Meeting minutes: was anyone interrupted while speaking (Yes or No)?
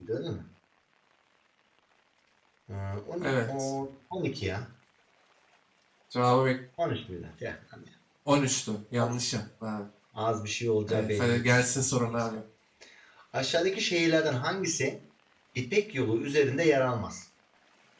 Yes